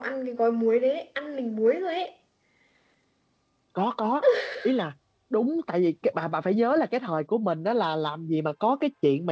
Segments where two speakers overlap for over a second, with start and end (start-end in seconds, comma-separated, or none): none